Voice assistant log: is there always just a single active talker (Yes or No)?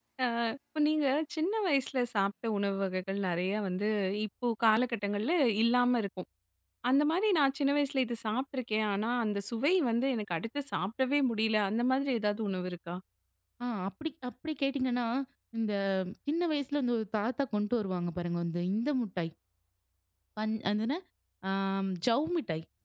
Yes